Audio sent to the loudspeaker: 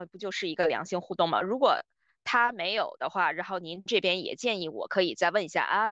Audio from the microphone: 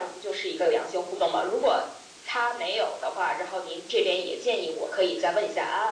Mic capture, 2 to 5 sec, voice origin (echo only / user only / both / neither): echo only